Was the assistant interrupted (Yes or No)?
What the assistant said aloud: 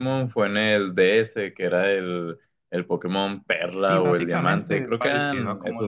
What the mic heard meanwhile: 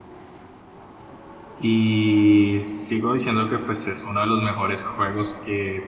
Yes